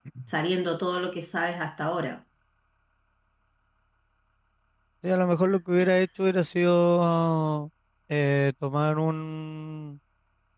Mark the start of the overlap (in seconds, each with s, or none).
none